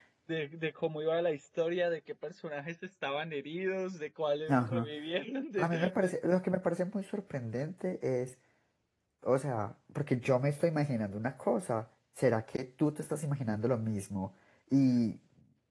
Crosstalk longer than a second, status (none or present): none